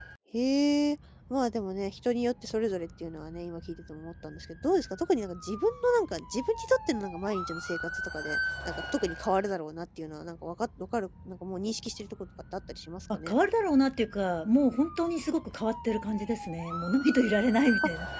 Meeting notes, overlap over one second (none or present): none